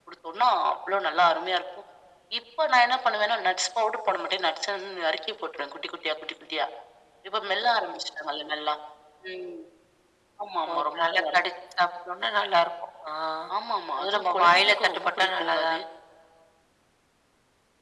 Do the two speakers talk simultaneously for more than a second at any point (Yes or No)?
Yes